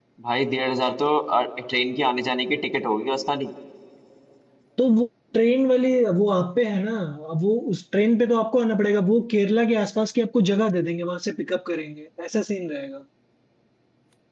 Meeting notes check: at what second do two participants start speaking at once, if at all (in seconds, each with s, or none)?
none